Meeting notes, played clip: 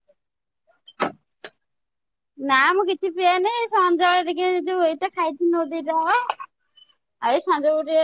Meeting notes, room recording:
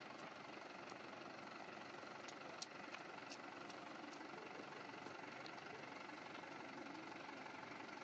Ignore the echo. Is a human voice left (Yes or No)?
No